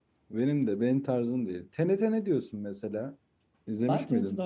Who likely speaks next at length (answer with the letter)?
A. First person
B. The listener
B